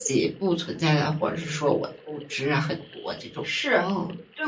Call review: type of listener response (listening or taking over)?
taking over